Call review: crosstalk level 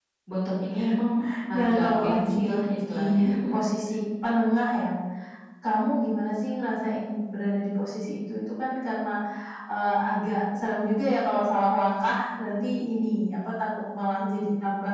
present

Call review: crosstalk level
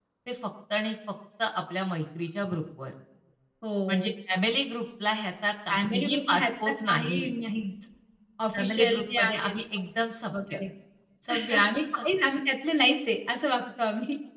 present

